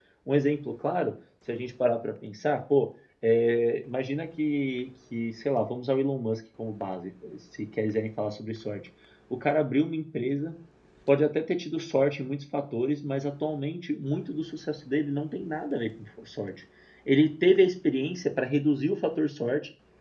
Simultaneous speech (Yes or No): No